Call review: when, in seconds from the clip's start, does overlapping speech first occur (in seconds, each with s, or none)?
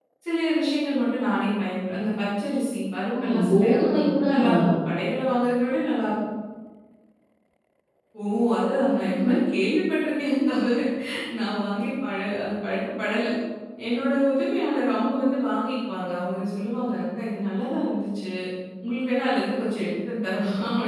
3.1 s